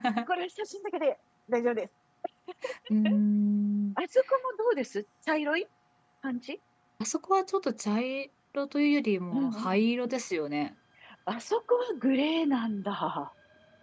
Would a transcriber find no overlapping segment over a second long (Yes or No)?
Yes